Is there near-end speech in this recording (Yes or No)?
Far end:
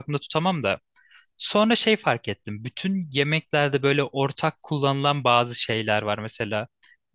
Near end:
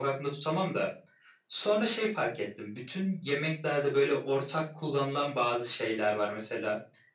No